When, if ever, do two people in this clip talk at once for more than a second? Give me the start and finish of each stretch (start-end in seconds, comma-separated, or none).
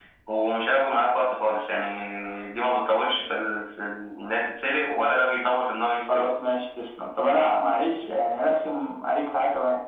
none